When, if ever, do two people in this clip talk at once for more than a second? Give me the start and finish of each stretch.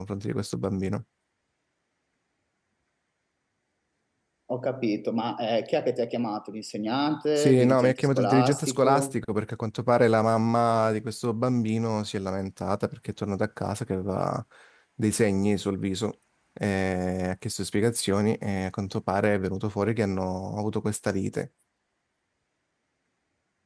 7.4-9.1

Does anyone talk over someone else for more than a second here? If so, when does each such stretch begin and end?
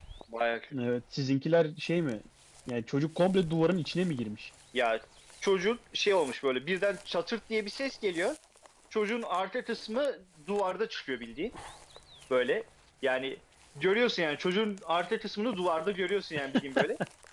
none

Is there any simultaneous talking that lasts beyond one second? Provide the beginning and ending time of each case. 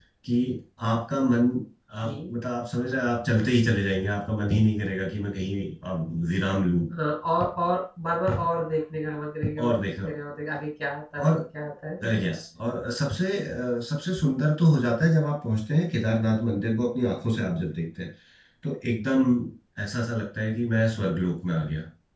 none

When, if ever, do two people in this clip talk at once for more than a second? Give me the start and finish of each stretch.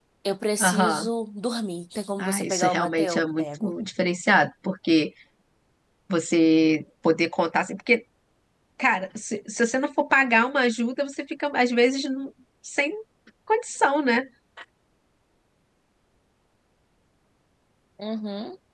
2.2-3.7

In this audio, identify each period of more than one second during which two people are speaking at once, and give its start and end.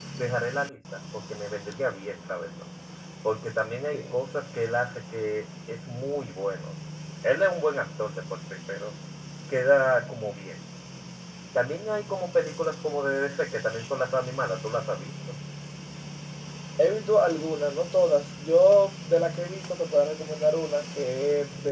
none

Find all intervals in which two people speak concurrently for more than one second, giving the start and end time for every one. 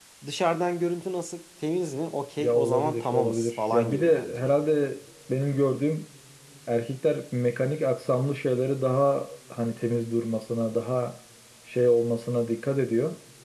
2.4-4.6

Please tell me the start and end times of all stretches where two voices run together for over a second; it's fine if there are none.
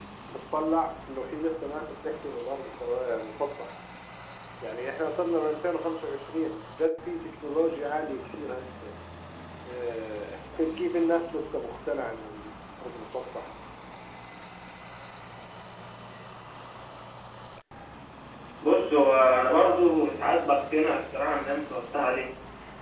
none

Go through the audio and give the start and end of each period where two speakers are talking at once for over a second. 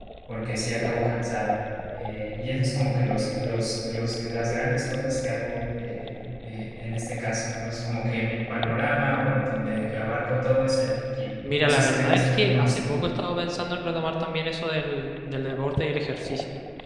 11.6-12.8

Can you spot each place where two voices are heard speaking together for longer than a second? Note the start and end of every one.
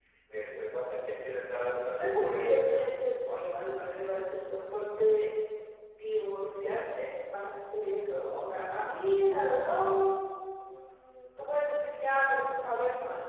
1.9-3.1

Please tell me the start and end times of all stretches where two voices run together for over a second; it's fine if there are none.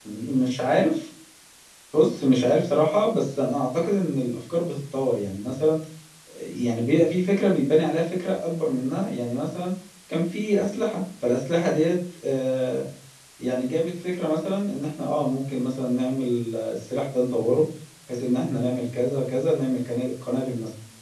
none

